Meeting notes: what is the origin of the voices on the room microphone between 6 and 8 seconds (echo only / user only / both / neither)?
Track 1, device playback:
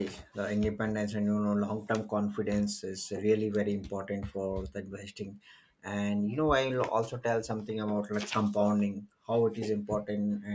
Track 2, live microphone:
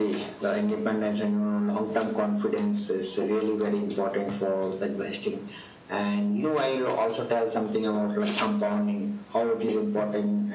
echo only